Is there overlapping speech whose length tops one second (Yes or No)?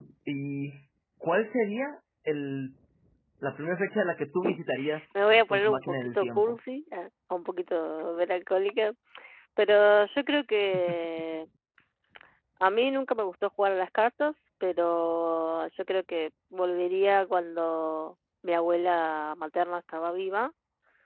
Yes